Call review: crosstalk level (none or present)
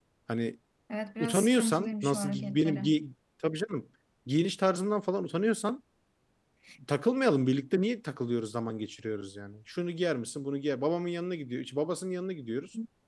present